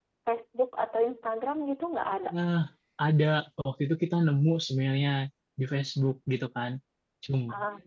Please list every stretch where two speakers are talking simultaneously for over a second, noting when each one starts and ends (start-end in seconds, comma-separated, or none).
none